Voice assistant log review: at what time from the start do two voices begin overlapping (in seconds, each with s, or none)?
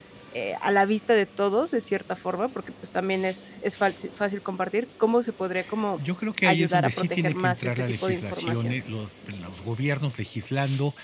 6.4 s